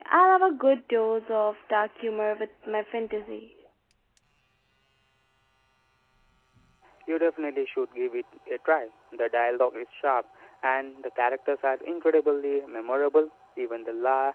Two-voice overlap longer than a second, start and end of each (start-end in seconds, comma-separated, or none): none